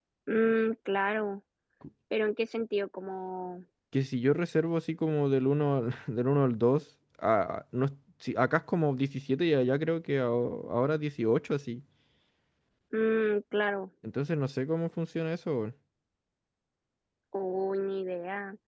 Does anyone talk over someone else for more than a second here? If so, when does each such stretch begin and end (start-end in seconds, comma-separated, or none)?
none